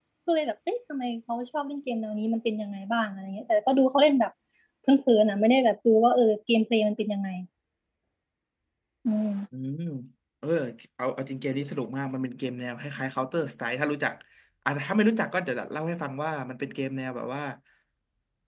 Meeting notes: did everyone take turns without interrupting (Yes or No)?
Yes